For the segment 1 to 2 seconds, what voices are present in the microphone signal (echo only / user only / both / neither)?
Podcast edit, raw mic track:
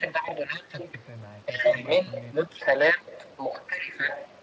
both